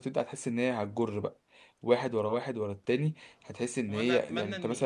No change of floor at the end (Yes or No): No